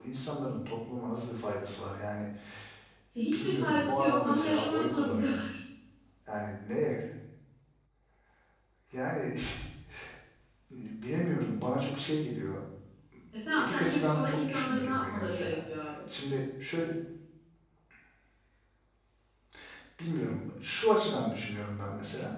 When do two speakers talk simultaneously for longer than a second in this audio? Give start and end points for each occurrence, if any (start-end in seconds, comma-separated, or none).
3.2-5.4, 13.5-15.6